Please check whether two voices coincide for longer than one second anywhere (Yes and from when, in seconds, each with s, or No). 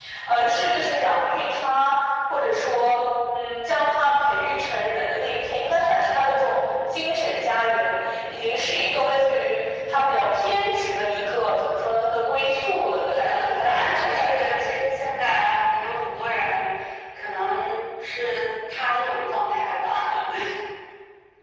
Yes, from 13.1 s